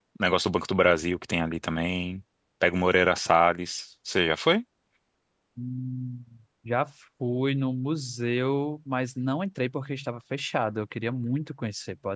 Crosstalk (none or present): none